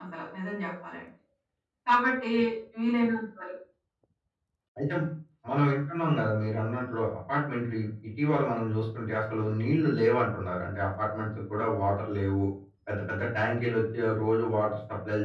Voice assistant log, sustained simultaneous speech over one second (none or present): none